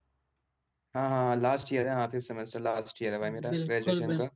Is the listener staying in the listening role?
No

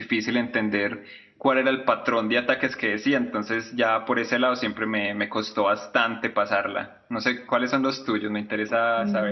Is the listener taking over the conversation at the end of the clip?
Yes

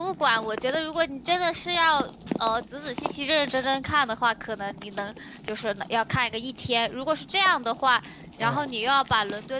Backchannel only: Yes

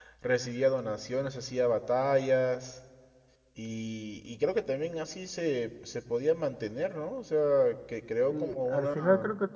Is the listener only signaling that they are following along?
No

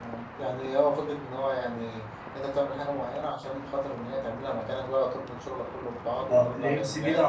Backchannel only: No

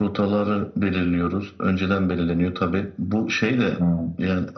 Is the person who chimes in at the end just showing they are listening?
Yes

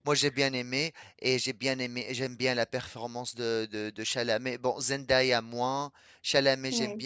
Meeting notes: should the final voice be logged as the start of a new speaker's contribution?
No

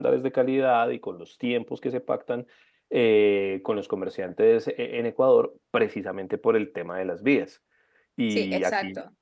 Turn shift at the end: Yes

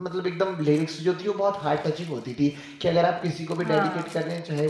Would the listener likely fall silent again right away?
Yes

